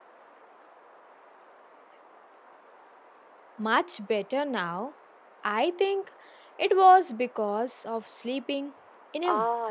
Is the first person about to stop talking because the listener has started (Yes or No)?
Yes